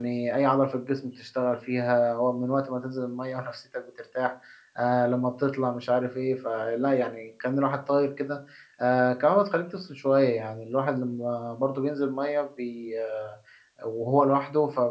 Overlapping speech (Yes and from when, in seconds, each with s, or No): No